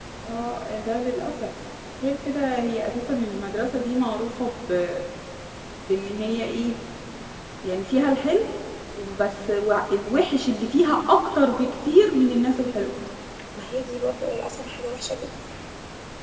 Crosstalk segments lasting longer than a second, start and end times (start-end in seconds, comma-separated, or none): none